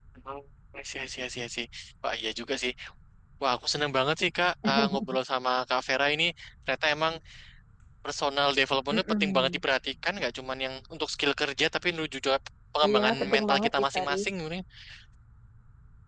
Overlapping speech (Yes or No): Yes